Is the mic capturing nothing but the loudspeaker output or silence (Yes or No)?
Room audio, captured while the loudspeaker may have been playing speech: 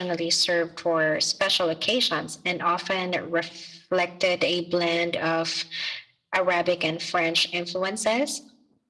Yes